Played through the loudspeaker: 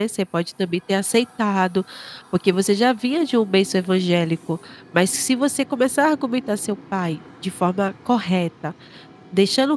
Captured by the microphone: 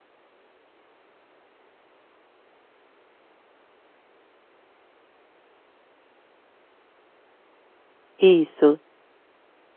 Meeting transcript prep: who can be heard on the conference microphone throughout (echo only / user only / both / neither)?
user only